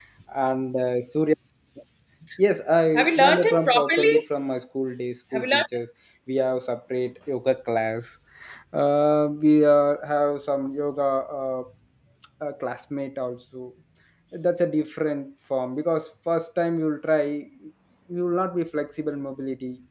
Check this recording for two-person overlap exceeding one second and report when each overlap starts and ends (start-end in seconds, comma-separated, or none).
2.9-4.1